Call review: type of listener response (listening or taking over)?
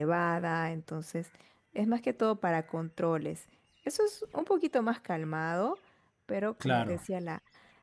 listening